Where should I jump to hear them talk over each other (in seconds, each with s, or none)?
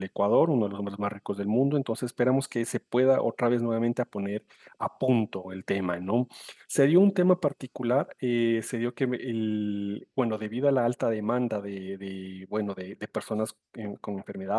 none